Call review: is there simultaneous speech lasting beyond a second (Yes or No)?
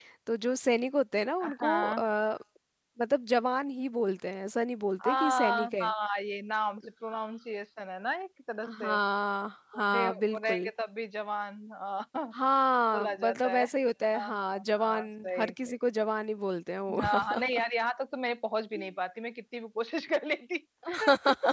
Yes